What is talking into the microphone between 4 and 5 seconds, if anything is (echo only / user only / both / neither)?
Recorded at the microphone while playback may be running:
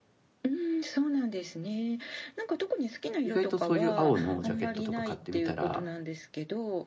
both